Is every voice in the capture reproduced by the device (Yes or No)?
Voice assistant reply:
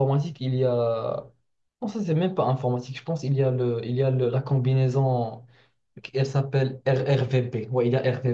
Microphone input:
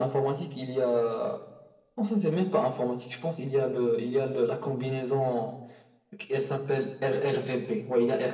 Yes